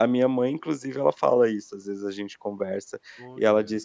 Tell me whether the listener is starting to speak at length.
No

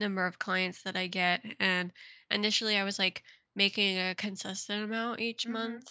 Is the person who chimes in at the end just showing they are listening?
Yes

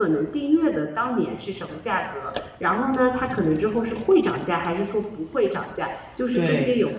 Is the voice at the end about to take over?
No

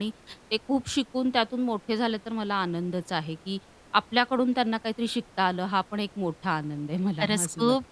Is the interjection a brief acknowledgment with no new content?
No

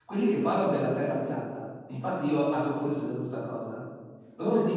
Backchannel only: Yes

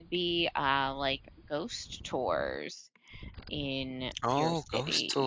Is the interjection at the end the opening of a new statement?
Yes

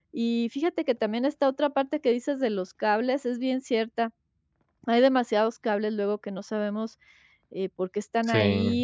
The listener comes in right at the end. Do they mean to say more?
No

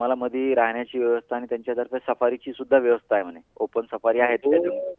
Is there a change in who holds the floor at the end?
Yes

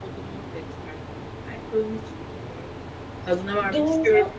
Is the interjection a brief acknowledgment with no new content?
No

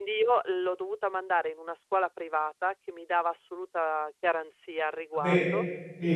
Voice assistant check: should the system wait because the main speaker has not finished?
Yes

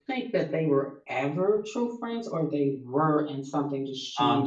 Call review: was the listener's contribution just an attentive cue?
No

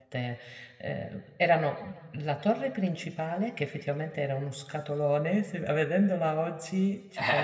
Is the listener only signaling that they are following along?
No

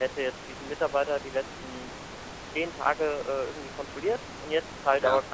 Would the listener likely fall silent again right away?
Yes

